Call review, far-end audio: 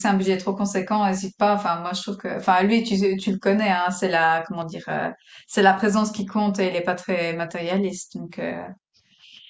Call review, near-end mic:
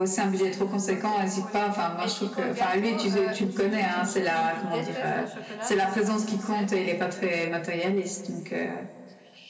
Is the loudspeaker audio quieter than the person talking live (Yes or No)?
No